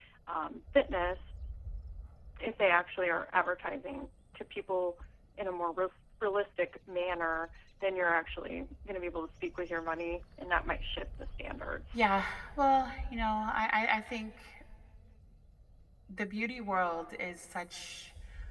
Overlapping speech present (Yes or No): No